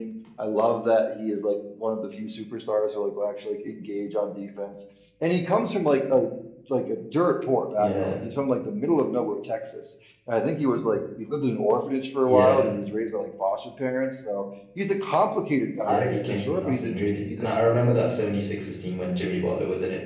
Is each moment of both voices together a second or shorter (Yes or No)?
No